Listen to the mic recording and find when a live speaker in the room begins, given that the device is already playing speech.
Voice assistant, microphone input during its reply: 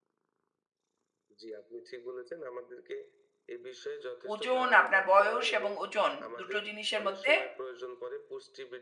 4.3 s

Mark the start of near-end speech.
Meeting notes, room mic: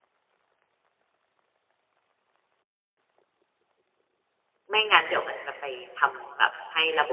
4.7 s

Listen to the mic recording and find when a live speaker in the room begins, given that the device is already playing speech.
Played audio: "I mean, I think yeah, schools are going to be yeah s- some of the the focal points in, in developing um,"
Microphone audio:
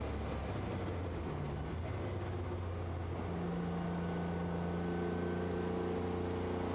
none

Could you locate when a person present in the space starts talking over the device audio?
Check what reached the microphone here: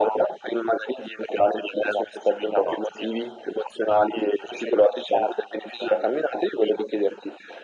none

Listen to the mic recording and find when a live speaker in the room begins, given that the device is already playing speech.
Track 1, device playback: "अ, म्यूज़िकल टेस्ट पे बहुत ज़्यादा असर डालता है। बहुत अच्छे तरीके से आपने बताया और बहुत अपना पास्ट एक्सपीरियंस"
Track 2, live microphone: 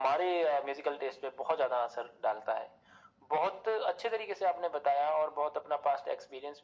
none

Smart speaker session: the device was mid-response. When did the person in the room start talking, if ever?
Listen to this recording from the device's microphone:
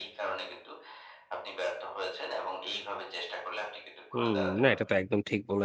4.1 s

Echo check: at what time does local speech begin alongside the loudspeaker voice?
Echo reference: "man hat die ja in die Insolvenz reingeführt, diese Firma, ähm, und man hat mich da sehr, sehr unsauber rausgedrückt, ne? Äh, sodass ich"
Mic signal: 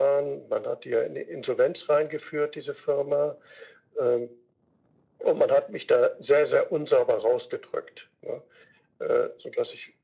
none

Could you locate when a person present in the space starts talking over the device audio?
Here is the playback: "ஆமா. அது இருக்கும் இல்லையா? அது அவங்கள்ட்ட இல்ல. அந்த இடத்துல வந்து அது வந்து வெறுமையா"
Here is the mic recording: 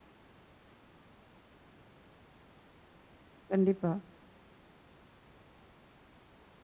3.5 s

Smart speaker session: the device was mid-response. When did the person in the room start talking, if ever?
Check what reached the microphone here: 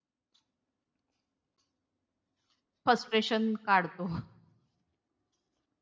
2.9 s

